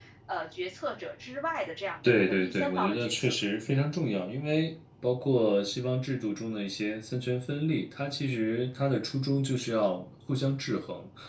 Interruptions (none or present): present